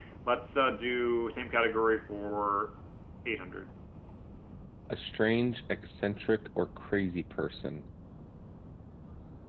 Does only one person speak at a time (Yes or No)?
Yes